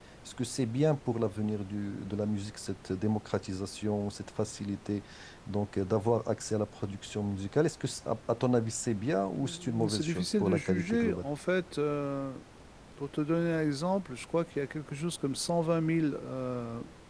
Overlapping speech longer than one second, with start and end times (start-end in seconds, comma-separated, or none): 9.4-11.3